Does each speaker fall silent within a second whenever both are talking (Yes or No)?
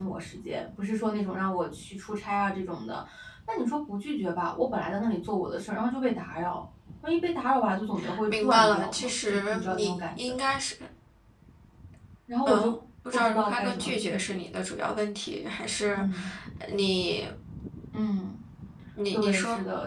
No